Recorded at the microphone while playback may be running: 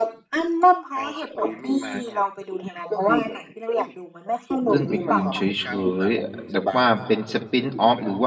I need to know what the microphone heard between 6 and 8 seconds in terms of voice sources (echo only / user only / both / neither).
both